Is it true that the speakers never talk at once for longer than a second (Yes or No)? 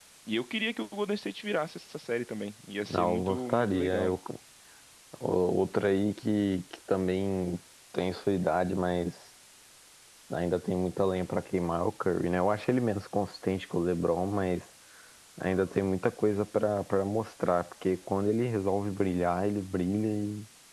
No